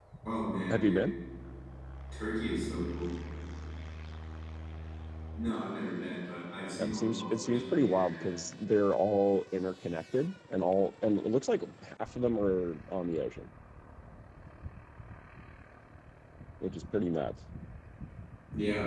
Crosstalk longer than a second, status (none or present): present